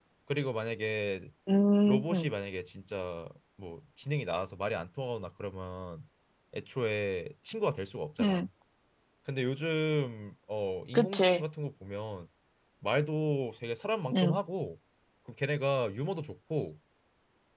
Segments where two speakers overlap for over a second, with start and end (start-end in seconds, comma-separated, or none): none